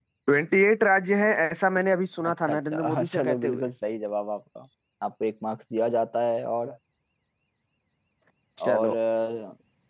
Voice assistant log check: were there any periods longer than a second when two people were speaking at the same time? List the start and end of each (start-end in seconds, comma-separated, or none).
2.3-3.7